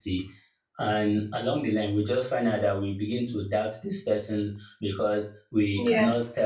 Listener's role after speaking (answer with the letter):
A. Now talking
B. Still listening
B